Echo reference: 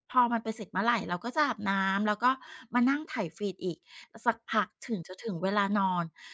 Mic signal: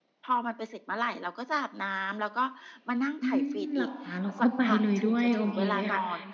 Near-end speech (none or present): present